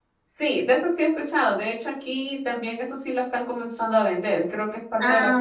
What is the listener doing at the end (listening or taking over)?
listening